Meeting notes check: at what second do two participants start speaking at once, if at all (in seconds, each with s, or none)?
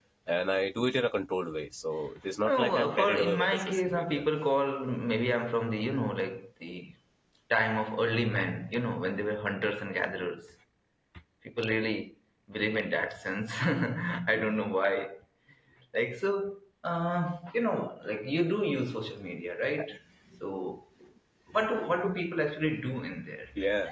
2.4 s